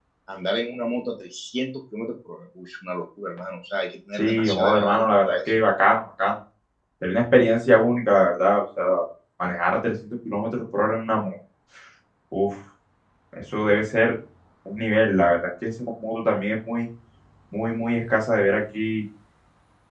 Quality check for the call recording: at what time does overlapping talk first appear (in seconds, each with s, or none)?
4.2 s